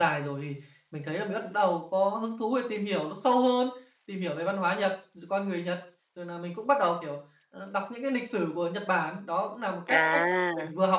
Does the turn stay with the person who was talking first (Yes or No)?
Yes